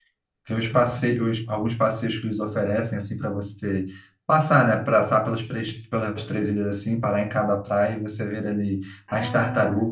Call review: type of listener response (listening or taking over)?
listening